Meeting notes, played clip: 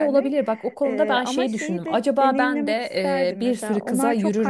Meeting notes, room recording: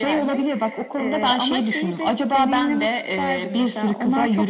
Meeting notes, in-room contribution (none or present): none